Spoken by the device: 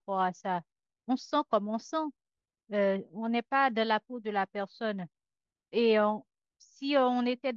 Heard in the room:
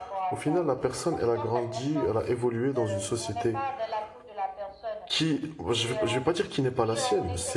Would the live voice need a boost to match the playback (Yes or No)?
No